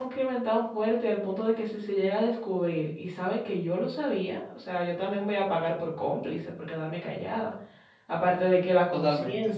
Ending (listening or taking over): listening